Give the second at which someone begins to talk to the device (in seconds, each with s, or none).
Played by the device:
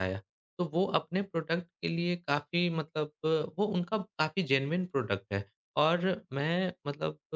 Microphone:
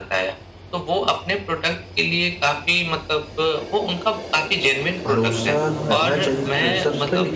5.0 s